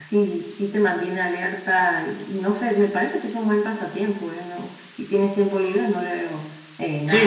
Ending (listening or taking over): taking over